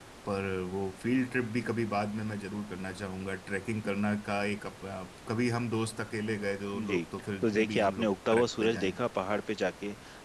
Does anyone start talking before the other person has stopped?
Yes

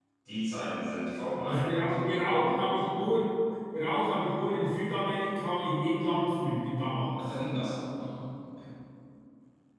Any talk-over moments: Yes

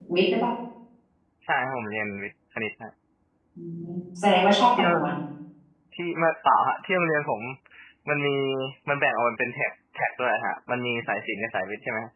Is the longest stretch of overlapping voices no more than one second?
Yes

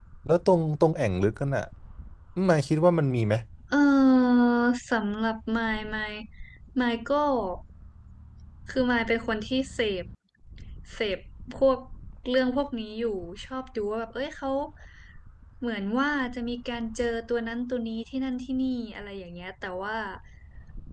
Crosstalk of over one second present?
No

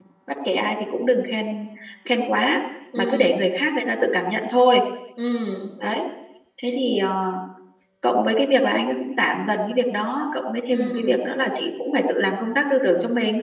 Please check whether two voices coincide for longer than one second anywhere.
No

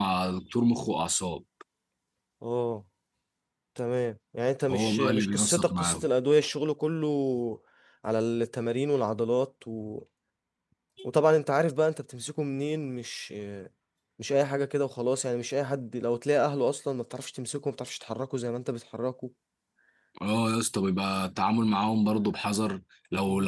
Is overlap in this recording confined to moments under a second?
No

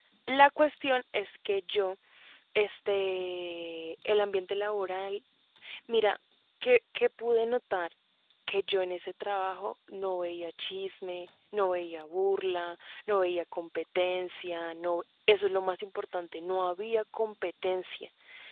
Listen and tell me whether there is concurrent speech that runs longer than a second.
No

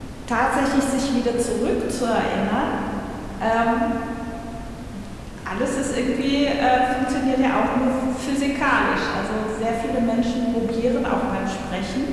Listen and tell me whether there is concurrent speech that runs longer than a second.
No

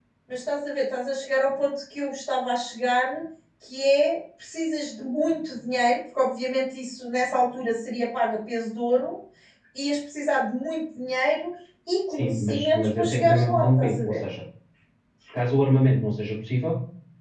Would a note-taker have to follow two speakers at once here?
Yes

